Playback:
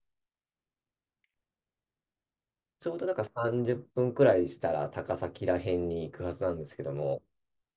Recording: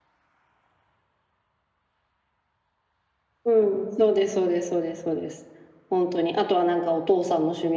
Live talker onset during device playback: 3.4 s

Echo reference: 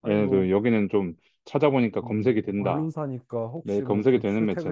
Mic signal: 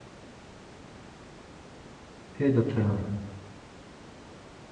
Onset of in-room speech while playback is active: 2.3 s

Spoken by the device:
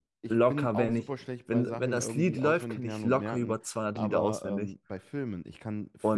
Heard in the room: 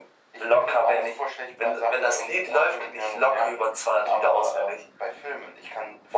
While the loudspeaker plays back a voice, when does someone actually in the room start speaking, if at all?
none

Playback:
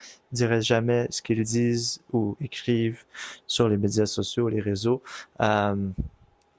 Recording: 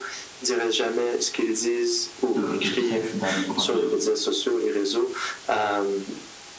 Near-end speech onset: 2.3 s

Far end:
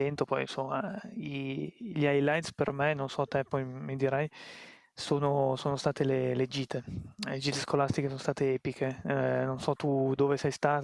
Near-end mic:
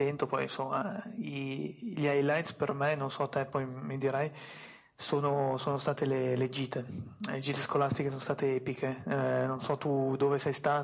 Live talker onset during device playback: none

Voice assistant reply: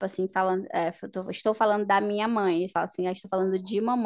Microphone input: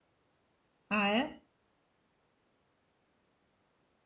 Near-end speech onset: 0.9 s

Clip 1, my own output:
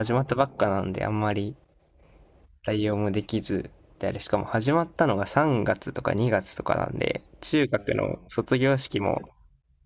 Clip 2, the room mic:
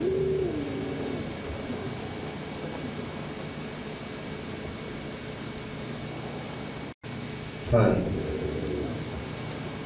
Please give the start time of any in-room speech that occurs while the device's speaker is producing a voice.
7.7 s

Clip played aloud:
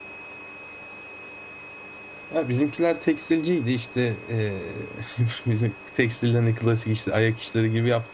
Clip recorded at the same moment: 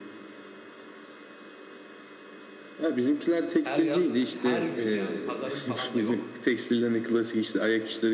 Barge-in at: 3.6 s

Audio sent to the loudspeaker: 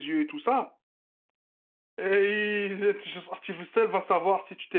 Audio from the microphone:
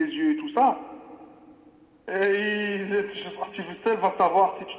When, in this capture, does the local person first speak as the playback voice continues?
none

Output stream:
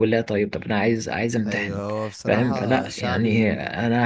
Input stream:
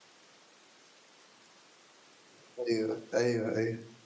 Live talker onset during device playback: 2.7 s

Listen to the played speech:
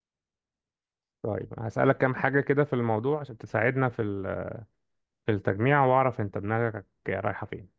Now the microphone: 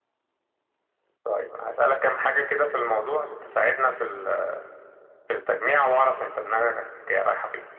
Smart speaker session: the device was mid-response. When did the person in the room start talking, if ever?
none

